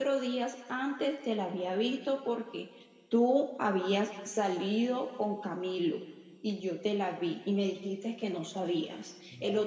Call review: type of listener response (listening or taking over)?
listening